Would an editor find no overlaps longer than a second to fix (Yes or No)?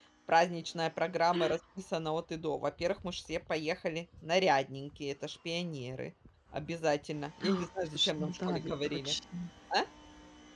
No